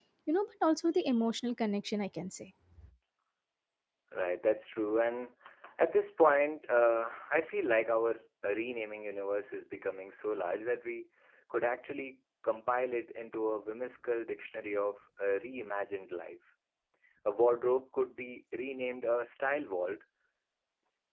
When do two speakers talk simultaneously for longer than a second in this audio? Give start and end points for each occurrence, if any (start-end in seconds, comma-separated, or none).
none